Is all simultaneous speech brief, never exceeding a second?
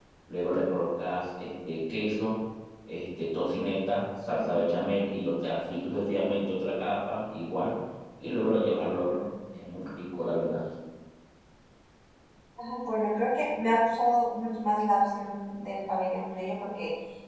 Yes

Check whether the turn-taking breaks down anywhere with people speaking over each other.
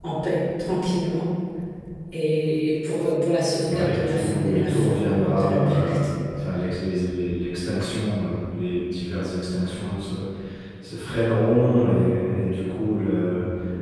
Yes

